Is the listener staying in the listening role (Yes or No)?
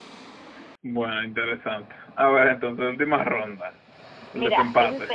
No